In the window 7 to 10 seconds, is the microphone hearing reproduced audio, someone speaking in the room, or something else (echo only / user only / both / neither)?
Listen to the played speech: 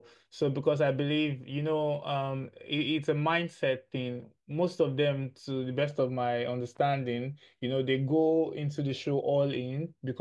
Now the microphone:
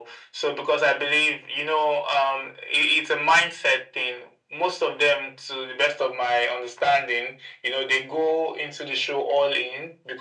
echo only